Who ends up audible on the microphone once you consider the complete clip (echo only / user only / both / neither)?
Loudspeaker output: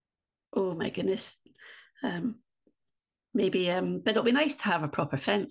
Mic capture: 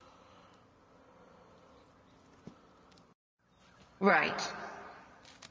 user only